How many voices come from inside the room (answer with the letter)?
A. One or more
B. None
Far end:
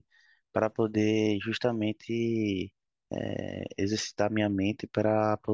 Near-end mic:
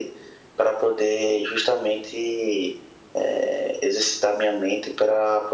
B